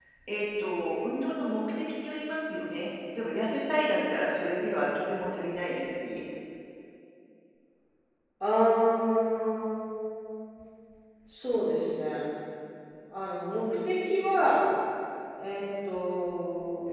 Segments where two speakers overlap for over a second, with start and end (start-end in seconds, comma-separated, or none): none